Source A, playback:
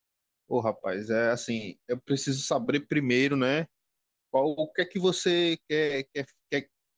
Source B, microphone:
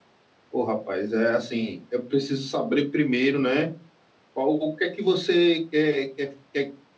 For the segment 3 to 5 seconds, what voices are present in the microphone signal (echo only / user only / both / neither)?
echo only